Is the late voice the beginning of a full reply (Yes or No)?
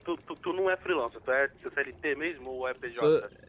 Yes